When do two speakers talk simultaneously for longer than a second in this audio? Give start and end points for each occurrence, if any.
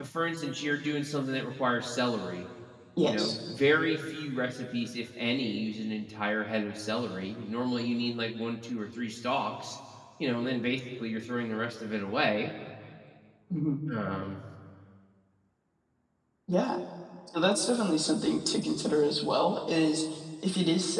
none

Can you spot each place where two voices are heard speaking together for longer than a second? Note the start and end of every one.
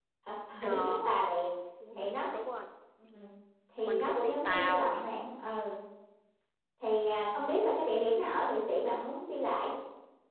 3.8-5.1

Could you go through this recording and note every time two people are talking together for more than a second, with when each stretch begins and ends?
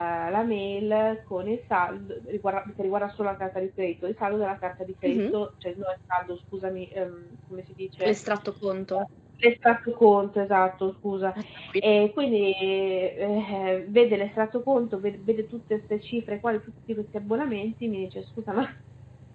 none

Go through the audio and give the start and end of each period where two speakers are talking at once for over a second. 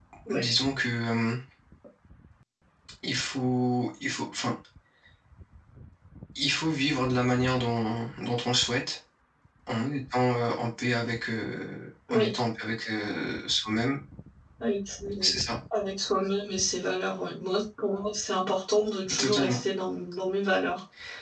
none

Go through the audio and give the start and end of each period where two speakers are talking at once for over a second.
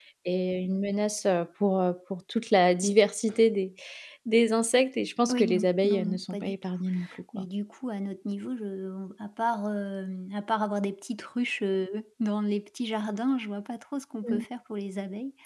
5.3-6.6

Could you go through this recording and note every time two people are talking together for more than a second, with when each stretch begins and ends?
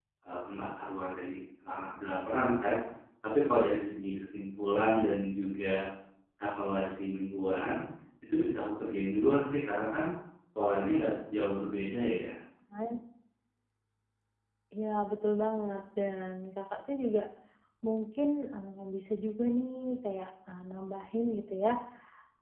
none

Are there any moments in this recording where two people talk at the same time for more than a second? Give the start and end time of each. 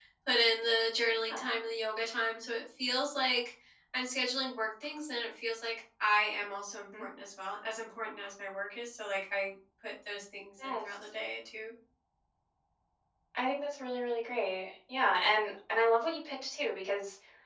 none

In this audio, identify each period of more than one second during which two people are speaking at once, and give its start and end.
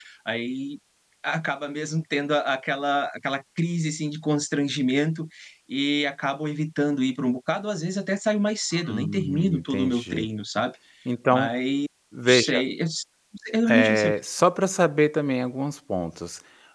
8.9-10.2

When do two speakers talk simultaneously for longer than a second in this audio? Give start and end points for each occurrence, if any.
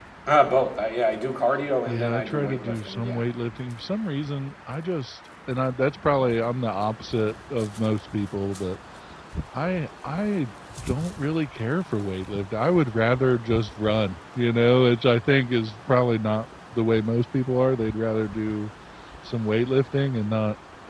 1.9-3.2

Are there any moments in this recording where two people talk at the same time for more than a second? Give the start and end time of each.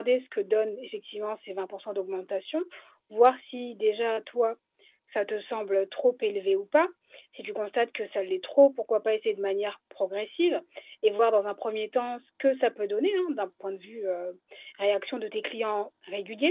none

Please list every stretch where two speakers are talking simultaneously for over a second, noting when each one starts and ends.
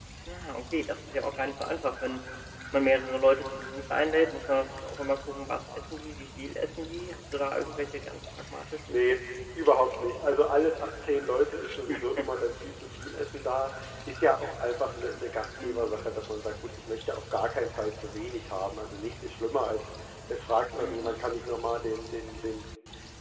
none

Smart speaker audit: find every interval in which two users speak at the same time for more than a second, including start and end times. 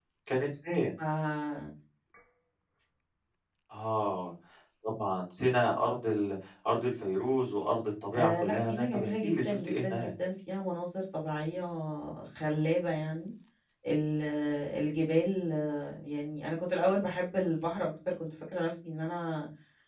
8.1-10.1

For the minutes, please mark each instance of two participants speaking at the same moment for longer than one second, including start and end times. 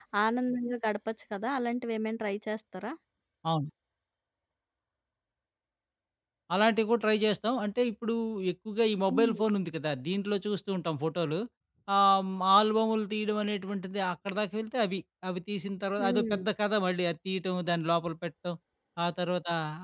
none

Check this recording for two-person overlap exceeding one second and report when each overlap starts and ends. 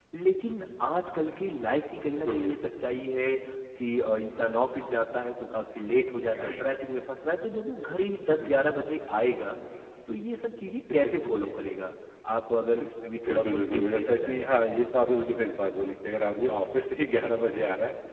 13.3-14.6

